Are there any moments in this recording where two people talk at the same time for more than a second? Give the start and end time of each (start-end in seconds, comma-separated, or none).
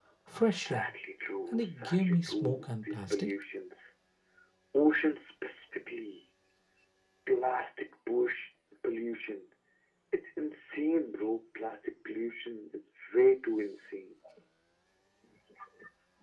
1.5-3.3